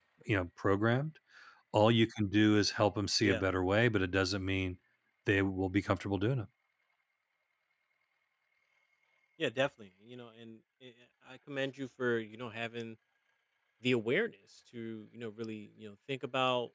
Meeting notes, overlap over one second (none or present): none